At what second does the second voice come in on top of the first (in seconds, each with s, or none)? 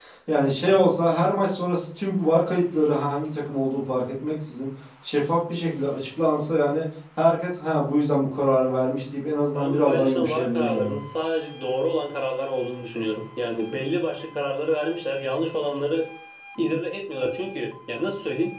9.5 s